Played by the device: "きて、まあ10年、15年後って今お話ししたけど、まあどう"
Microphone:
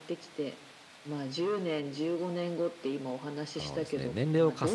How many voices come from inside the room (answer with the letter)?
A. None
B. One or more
B